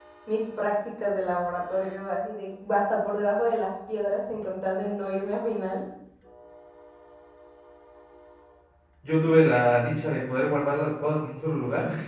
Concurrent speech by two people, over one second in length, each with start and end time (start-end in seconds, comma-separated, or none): none